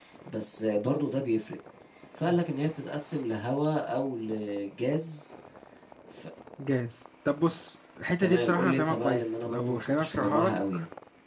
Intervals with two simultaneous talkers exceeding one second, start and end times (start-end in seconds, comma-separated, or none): 8.2-10.4